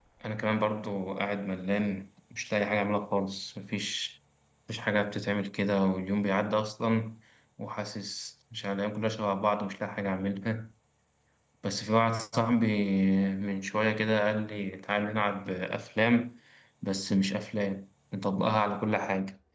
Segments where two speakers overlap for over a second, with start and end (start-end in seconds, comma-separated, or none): none